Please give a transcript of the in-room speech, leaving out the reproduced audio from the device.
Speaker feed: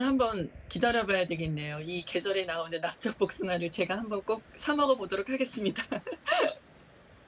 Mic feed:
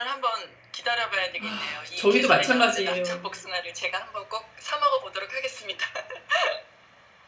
아 저희도 마찬가지예요.

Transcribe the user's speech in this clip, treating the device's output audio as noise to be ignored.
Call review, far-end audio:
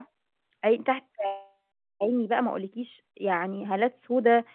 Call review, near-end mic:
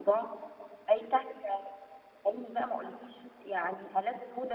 none

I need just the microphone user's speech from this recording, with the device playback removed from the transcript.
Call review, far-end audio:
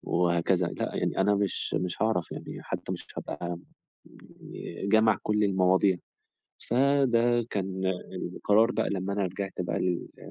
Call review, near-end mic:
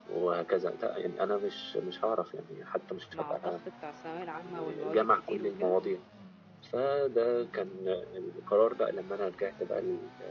مع الضغط بتاع الثانوية العامة والمواد الكتير وكده؟

